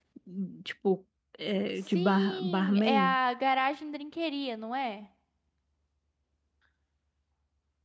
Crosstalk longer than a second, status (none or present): present